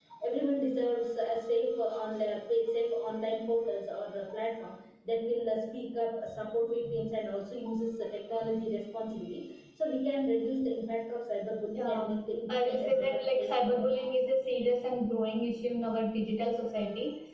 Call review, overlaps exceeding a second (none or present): present